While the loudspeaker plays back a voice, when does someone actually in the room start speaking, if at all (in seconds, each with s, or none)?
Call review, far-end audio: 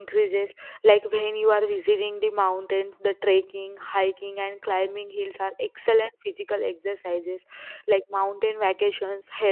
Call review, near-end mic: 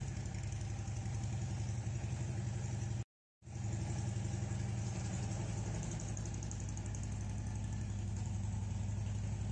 none